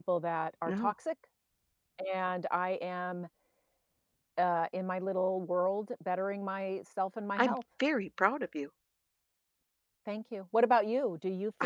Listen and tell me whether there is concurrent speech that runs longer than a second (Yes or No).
No